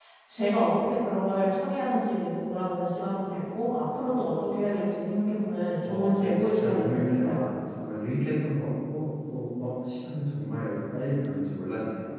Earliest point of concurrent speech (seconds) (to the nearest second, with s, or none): 6 s